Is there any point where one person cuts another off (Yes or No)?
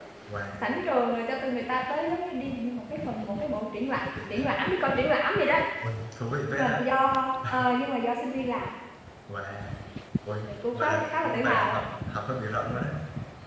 Yes